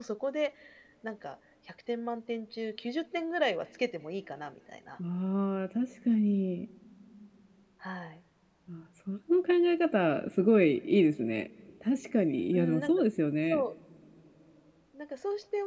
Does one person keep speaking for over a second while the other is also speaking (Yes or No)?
No